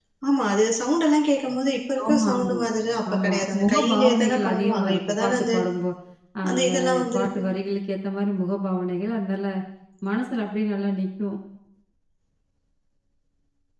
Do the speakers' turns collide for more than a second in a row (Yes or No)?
Yes